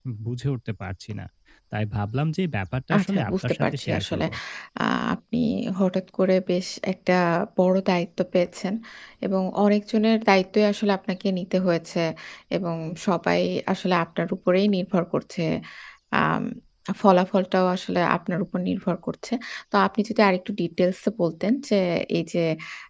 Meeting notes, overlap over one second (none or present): present